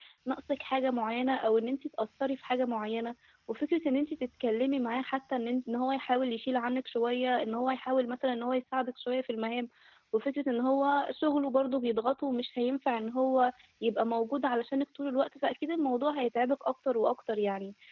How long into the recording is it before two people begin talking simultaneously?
none

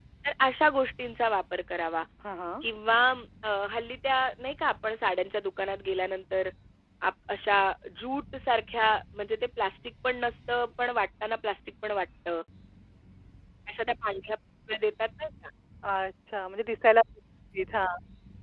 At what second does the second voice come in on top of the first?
none

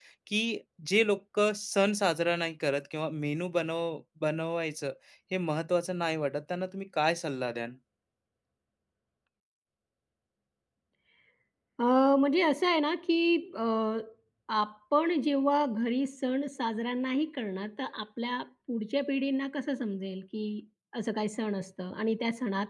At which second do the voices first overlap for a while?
none

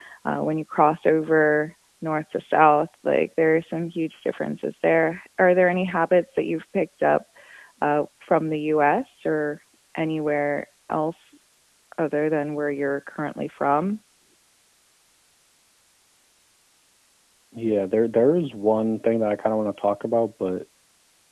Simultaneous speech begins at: none

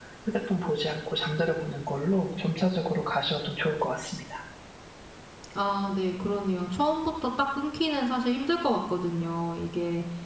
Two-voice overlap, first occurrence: none

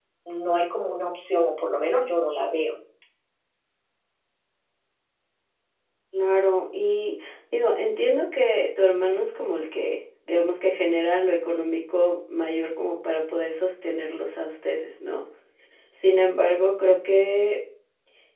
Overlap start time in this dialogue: none

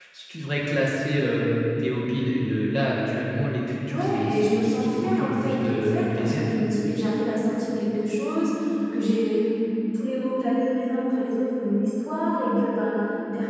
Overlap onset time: 3.9 s

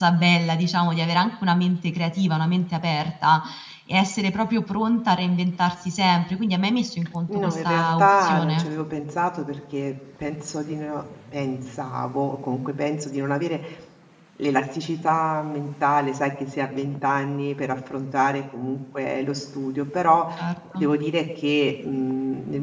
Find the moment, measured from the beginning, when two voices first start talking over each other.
7.3 s

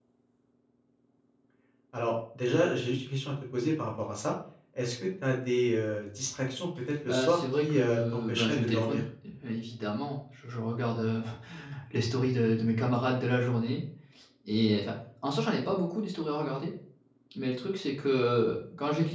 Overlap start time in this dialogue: 7.0 s

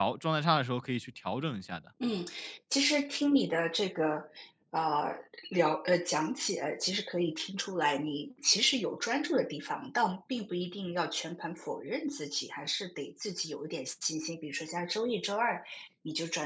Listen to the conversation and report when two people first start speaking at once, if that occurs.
none

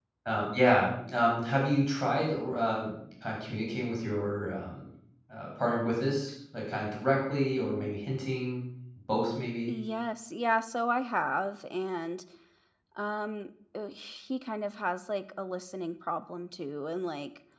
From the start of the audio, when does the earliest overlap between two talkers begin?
none

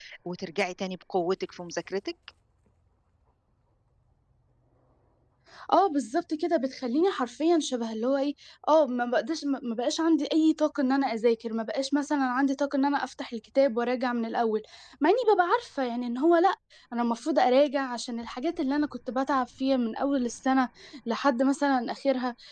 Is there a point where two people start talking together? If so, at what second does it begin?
none

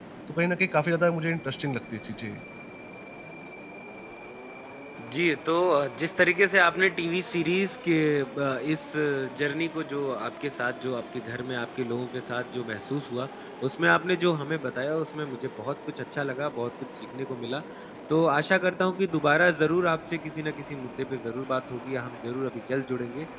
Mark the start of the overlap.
none

